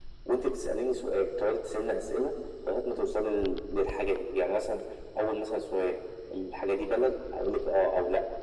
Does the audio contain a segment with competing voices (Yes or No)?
No